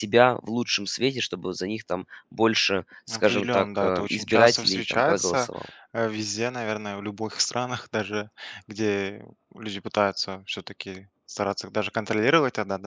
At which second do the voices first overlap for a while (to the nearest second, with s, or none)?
3 s